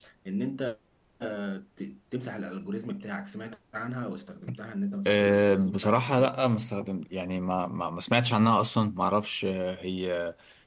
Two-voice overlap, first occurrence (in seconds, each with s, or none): 5.1 s